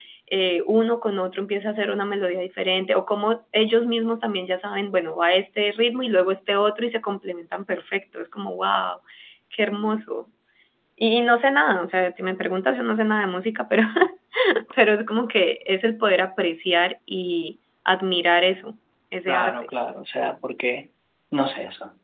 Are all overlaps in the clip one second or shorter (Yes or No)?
Yes